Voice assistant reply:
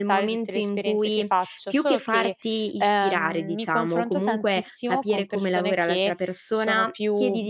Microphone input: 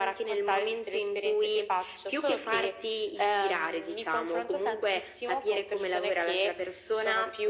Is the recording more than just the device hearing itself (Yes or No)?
No